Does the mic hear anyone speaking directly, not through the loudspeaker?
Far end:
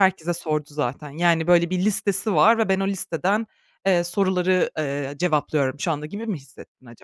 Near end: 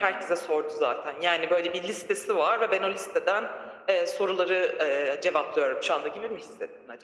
No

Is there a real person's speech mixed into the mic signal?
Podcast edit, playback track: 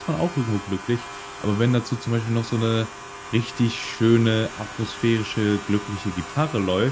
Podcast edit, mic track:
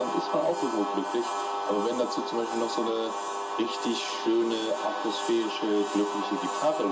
No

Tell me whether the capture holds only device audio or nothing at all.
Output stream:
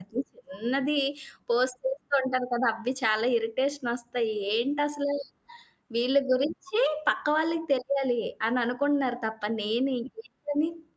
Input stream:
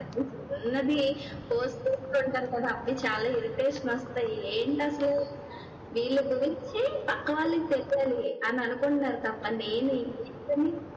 Yes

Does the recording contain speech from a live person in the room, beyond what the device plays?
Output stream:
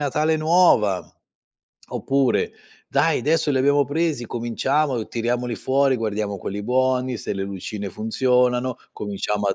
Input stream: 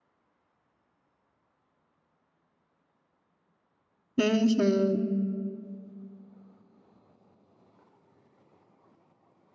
Yes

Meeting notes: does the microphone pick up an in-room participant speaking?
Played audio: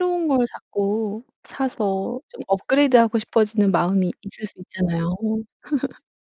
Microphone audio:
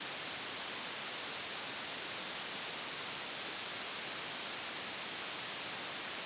No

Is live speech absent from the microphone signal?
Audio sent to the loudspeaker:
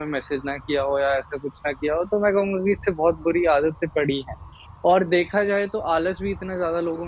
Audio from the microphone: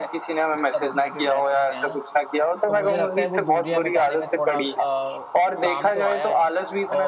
No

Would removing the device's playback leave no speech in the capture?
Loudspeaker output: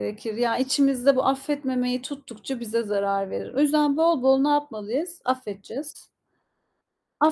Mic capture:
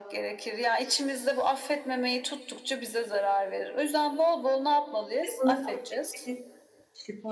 No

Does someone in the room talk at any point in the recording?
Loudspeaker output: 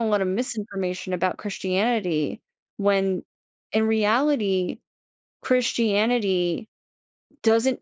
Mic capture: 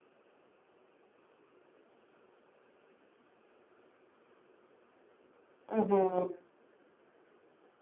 Yes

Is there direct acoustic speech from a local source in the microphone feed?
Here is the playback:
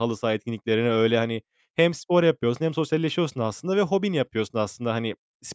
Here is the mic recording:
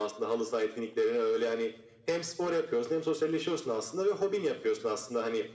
No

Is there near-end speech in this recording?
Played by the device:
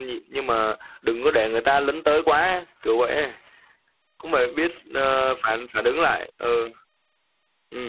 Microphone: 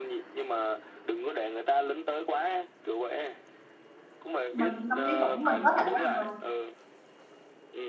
Yes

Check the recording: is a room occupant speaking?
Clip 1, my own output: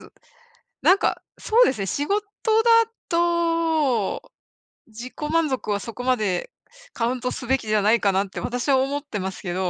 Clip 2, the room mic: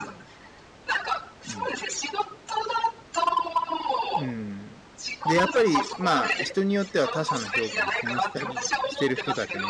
Yes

